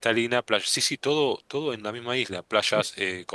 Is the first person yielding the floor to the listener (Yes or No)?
No